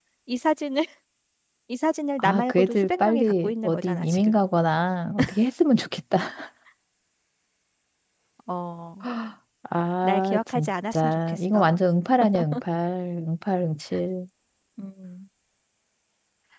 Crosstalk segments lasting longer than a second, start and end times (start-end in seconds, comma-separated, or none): 2.2-4.4, 10.0-11.8